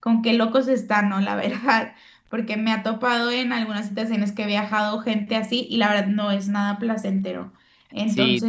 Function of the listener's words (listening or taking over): taking over